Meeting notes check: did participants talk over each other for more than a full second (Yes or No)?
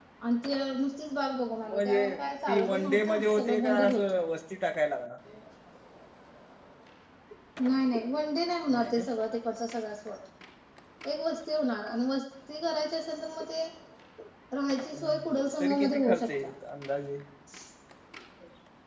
Yes